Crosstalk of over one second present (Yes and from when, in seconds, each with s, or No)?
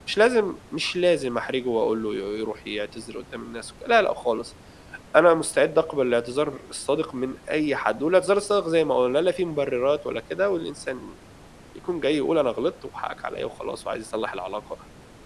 No